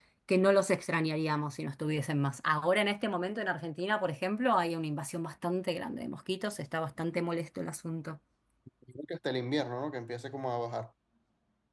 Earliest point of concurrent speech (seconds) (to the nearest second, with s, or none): none